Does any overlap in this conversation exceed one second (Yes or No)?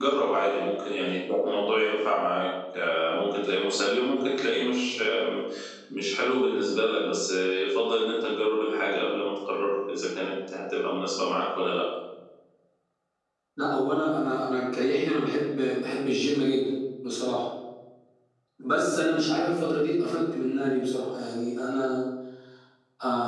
No